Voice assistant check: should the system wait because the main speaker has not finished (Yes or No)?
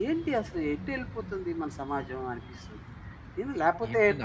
No